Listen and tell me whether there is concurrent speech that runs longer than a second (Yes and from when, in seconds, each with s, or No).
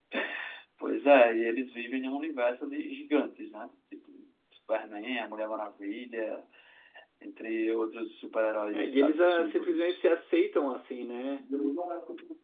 Yes, from 8.7 s